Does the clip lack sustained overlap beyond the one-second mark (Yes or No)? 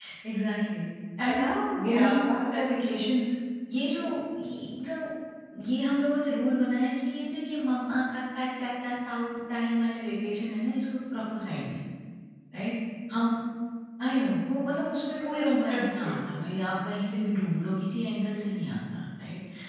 No